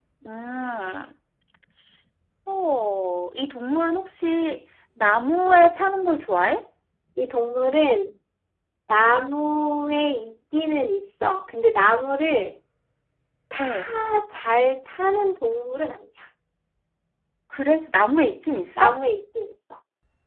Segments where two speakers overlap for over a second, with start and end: none

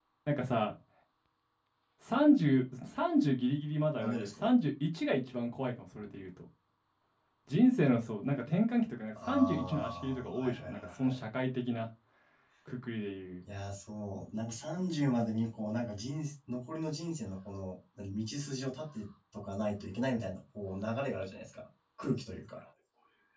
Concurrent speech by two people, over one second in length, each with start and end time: 9.2-11.2

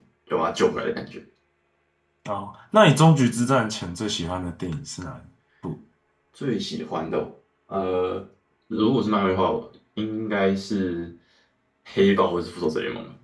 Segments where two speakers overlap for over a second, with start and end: none

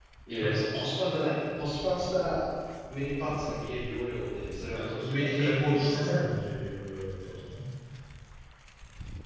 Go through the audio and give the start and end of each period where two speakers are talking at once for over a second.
4.7-6.2

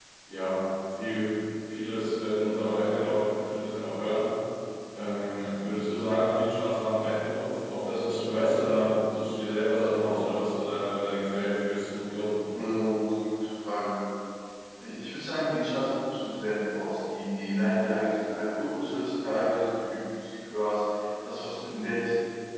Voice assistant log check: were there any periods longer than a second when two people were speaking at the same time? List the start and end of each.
none

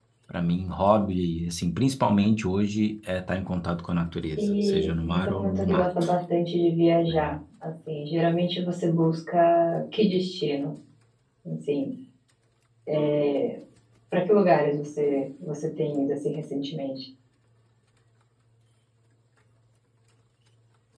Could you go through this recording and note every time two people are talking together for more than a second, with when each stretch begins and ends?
4.4-6.1

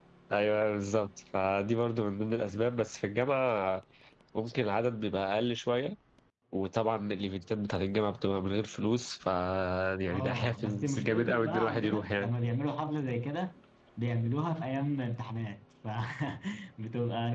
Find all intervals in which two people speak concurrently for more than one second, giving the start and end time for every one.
10.1-12.3

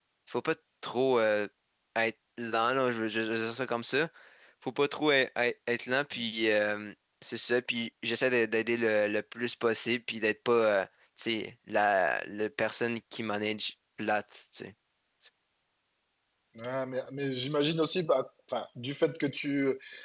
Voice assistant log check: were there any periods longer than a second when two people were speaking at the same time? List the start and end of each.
none

